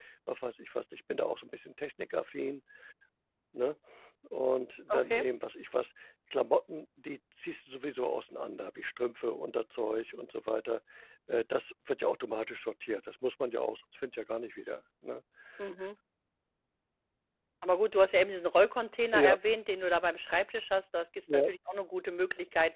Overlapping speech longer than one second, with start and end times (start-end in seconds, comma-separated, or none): none